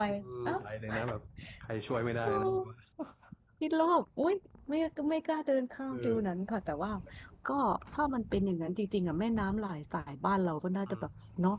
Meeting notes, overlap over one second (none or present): none